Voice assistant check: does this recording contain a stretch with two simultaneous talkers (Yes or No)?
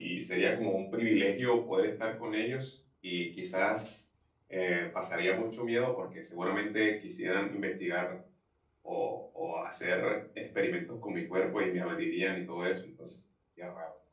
No